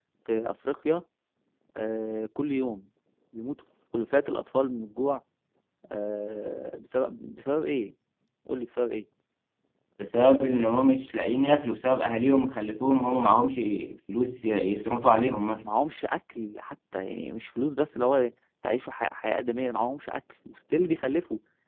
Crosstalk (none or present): none